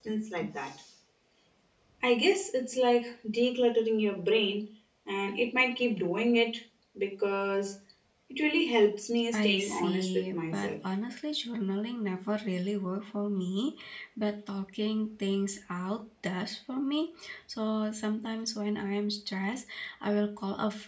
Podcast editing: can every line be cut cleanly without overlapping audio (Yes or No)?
No